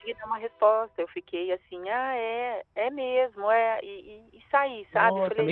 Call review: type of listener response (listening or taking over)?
taking over